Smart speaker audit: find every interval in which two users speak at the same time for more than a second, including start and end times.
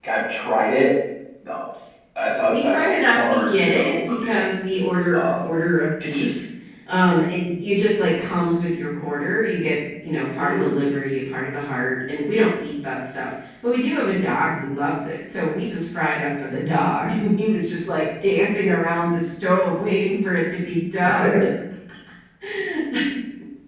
2.5-4.5

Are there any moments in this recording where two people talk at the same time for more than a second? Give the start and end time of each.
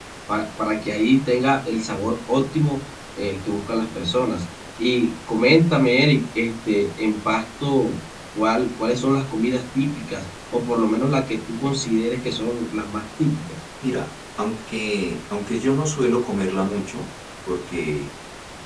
none

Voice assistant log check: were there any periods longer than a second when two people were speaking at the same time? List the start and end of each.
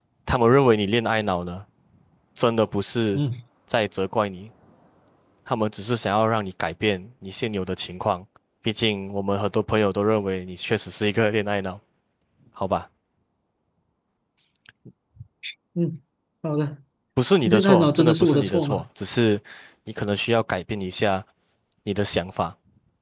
17.4-18.8

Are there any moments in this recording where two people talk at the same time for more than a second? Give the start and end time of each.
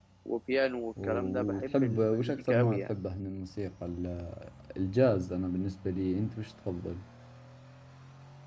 1.0-3.0

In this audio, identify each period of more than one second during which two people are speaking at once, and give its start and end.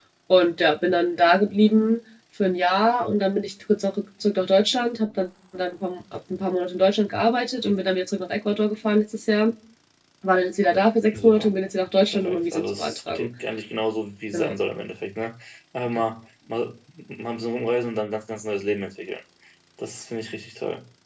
12.1-13.3

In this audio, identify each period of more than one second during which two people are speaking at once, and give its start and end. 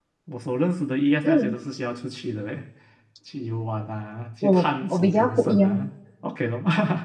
4.4-5.9

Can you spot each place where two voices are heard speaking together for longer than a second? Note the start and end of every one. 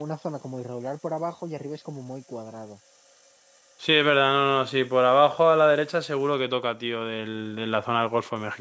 none

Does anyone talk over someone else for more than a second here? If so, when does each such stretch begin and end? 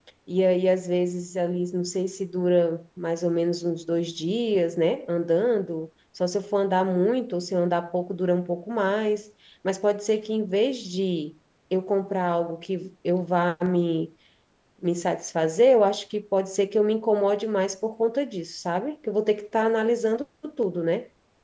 none

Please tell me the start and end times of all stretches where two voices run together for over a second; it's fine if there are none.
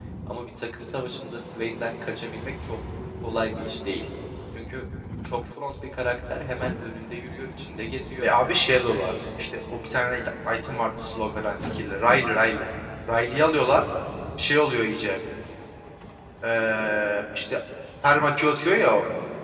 none

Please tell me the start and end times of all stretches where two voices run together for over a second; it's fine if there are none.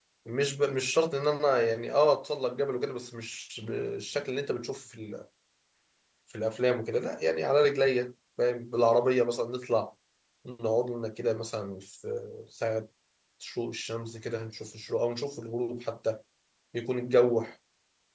none

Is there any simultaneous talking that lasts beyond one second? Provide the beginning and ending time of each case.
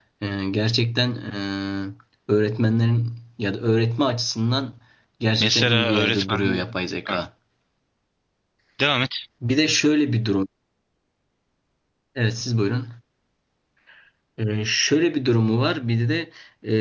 5.4-6.6

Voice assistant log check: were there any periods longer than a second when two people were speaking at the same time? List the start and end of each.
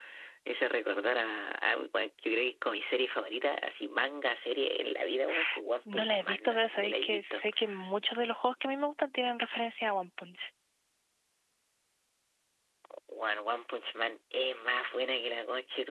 5.9-7.4

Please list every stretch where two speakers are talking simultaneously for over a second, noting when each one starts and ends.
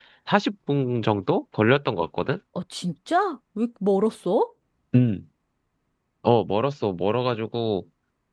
none

